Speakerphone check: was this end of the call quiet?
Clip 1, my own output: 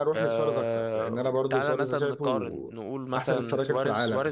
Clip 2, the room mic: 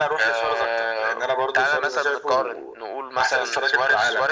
Yes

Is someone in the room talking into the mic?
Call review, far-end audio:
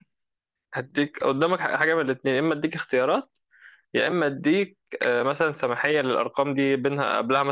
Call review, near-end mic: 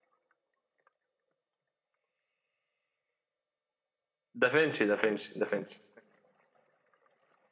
Yes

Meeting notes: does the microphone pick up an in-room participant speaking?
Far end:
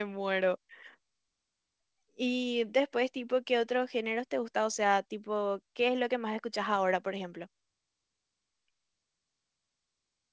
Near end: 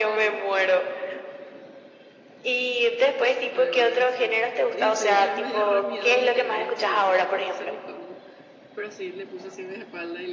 Yes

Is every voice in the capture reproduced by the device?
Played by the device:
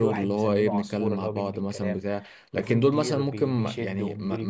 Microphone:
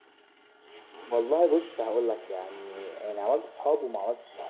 No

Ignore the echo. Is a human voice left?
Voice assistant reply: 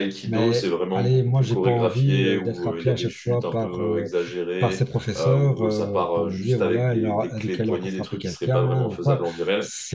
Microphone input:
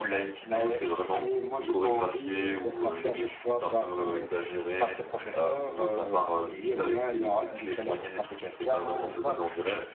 No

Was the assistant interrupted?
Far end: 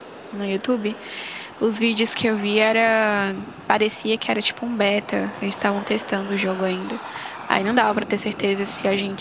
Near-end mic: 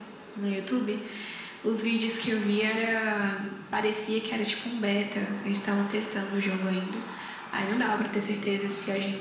No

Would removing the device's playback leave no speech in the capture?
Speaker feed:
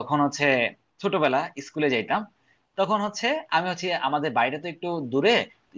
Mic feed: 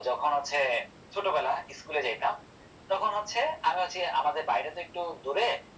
Yes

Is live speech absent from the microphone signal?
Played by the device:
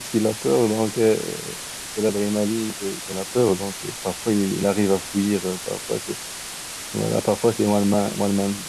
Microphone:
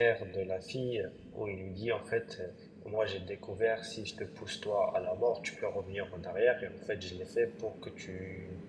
No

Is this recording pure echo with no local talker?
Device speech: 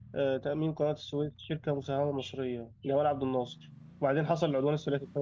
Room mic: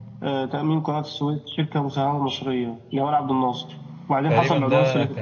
No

